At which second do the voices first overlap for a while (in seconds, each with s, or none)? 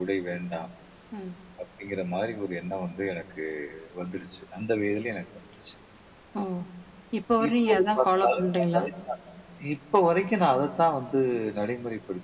7.5 s